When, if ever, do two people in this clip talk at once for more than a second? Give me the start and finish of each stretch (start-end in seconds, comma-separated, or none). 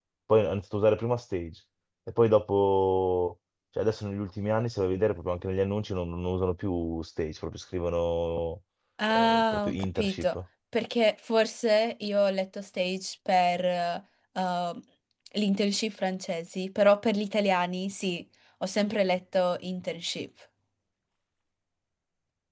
9.1-10.3